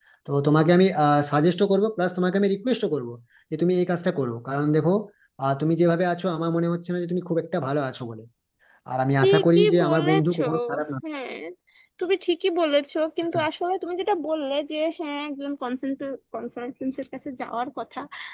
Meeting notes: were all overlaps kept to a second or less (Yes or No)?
No